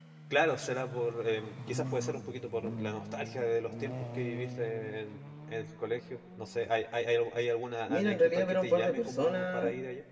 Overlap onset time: 8 s

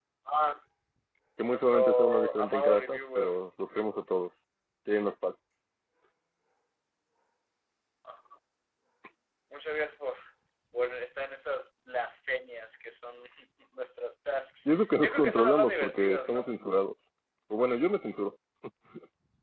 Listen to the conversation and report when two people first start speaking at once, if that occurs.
2 s

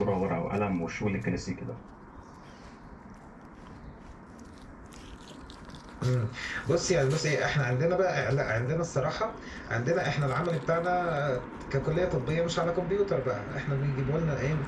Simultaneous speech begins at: none

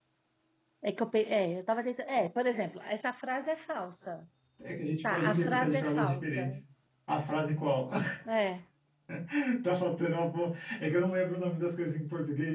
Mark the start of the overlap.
5 s

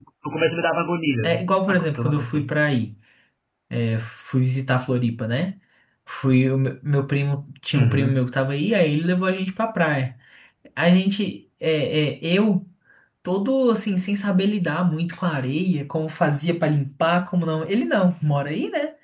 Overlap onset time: 1 s

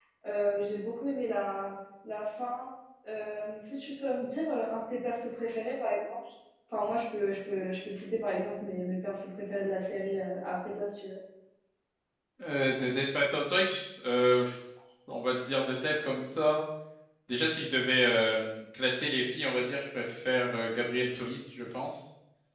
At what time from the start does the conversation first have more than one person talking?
none

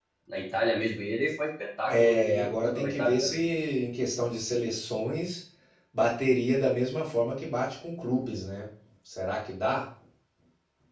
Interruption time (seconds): 2 s

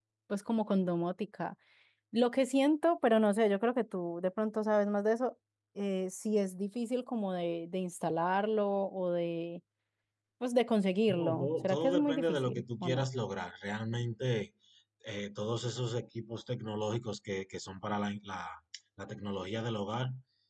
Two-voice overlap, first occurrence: 11 s

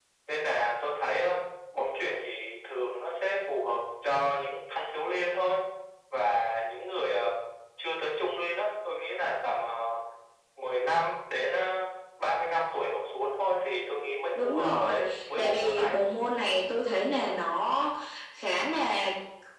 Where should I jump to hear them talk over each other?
14 s

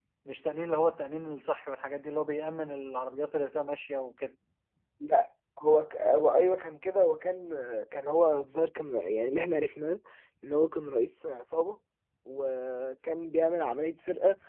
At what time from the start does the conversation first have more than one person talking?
none

